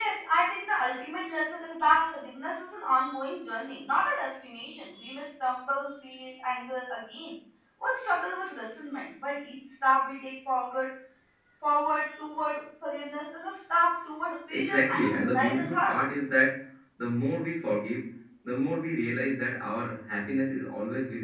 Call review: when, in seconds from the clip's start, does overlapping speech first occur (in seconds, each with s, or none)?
14.5 s